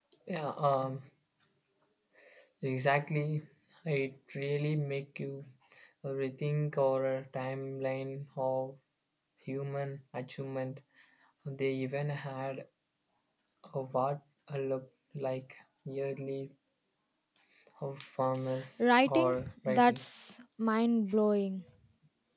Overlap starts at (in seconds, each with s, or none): 18.8 s